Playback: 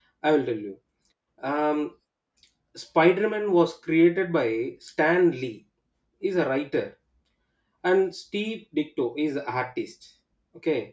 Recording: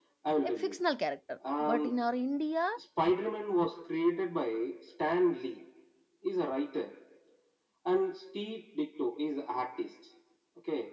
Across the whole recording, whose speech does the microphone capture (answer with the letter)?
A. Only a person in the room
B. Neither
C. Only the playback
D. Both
D